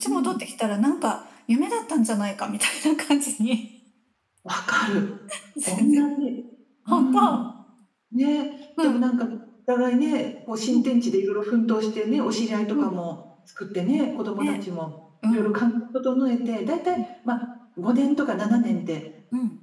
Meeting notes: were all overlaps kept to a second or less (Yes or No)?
Yes